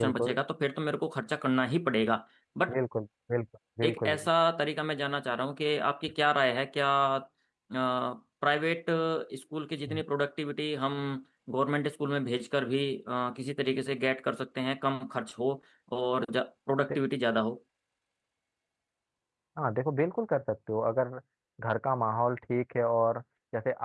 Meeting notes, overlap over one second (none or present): none